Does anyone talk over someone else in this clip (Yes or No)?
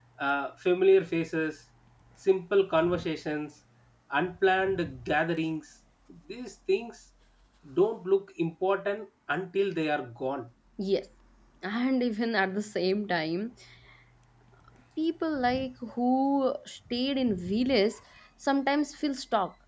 No